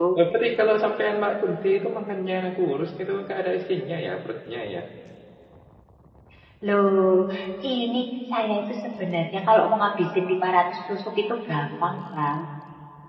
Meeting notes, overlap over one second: none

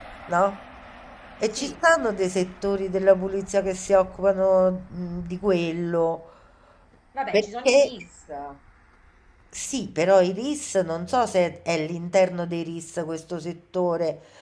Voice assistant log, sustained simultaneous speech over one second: none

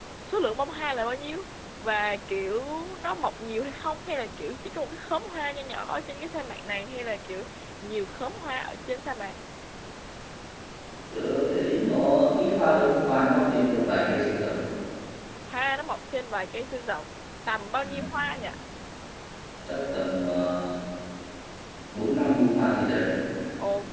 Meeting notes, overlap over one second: none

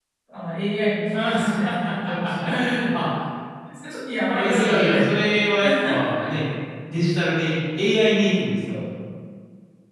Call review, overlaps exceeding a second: present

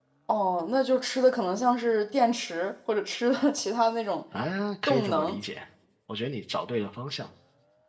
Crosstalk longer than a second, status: none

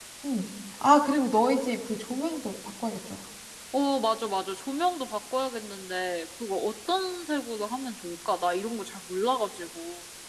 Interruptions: none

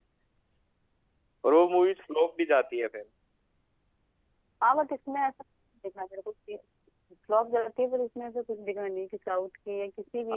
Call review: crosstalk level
none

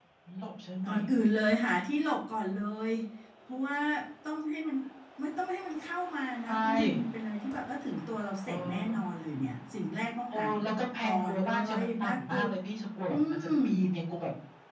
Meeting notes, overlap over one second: present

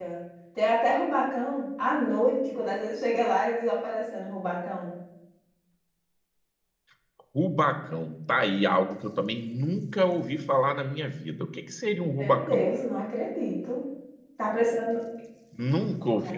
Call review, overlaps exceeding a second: none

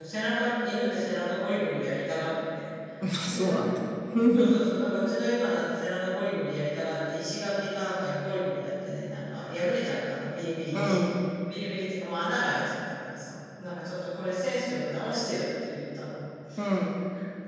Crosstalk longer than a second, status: none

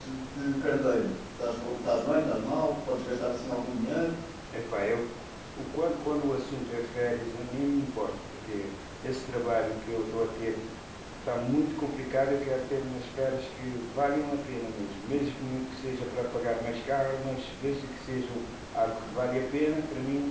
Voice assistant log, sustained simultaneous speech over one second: none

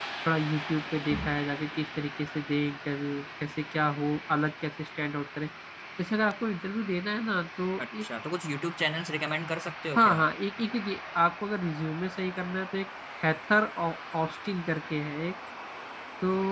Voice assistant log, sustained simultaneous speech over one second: none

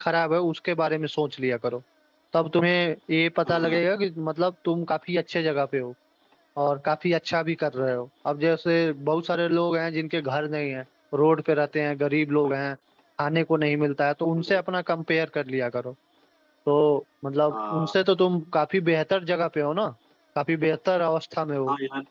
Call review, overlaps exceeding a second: none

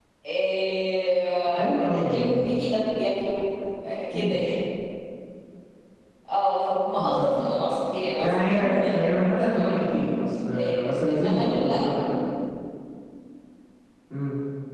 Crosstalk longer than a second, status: present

